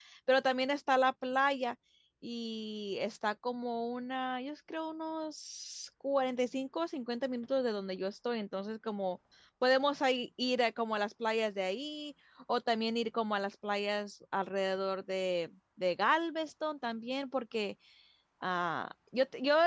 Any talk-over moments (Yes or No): No